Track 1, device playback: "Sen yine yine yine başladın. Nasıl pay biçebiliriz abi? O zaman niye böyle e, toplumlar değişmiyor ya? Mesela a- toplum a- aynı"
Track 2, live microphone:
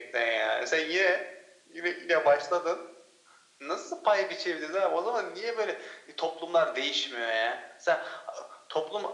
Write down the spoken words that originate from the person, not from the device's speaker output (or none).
none